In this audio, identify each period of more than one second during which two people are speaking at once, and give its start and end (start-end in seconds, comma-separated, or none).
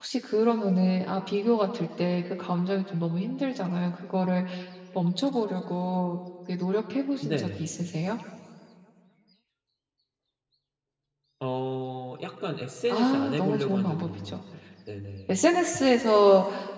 12.9-14.4